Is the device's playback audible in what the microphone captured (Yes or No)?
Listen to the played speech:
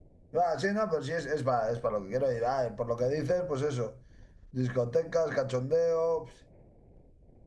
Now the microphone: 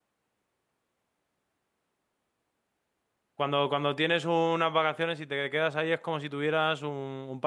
No